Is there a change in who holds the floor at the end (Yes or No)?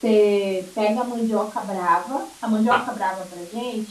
No